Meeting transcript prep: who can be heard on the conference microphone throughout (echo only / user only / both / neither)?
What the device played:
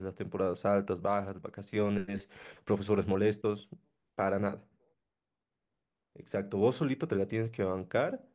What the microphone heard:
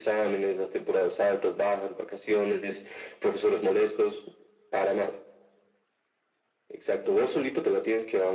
echo only